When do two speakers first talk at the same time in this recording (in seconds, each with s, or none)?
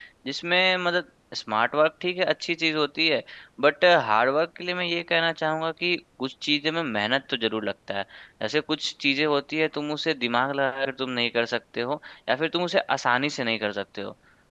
none